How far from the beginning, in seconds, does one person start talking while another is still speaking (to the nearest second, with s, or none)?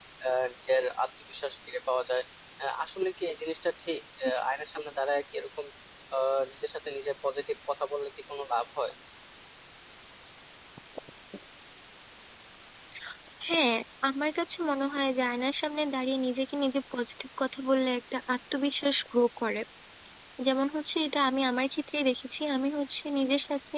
none